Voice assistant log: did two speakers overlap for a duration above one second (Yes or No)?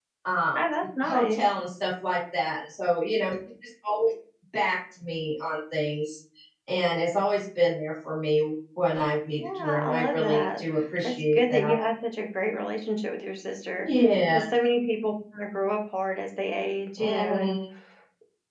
Yes